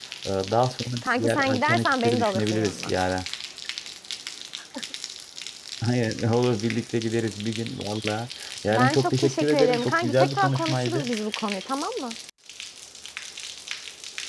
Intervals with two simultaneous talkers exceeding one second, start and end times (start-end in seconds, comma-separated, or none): 1.2-2.9, 8.7-11.1